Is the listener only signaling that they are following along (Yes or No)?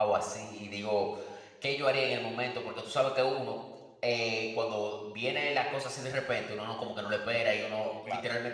Yes